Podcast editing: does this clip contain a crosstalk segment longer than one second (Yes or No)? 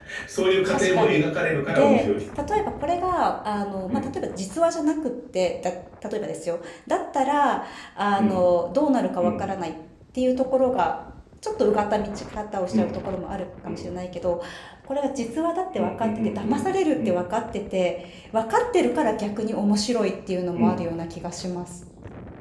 Yes